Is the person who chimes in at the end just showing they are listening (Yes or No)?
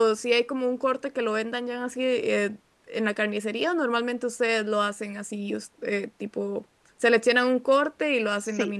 No